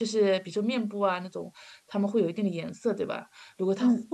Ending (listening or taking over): listening